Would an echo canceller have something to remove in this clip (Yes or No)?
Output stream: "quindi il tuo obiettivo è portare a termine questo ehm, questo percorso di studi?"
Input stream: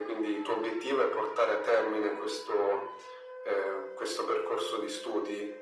Yes